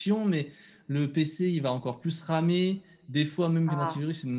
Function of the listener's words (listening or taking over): listening